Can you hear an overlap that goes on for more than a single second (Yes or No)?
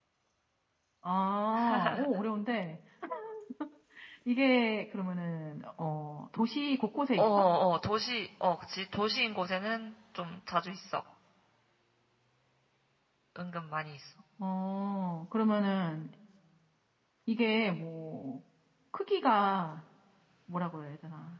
No